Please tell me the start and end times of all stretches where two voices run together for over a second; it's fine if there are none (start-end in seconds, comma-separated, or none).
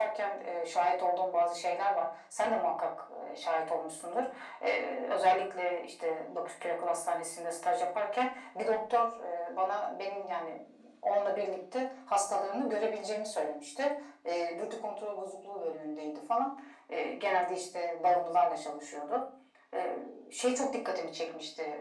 none